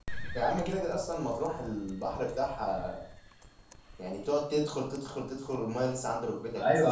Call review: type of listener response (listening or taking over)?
taking over